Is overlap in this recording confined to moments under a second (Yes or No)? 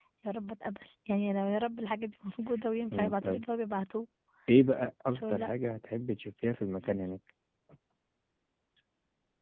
Yes